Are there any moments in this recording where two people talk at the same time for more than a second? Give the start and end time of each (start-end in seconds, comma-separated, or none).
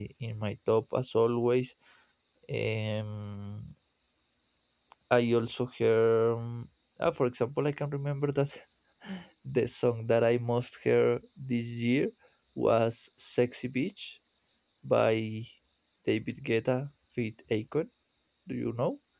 none